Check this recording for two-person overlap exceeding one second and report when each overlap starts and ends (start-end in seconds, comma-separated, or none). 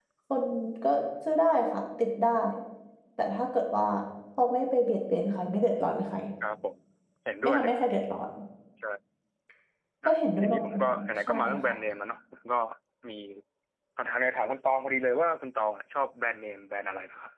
10.0-11.6